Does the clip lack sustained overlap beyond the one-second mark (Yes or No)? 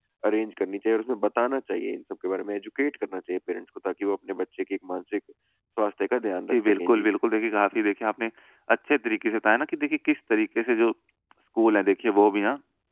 Yes